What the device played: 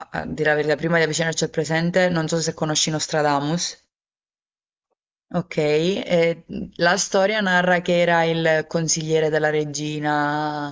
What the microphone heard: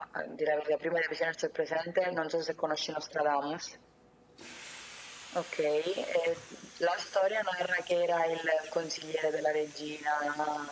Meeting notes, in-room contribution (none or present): none